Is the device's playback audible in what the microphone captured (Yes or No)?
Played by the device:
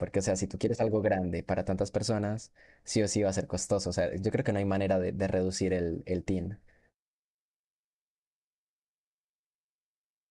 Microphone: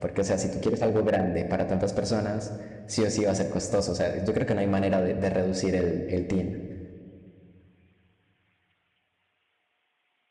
Yes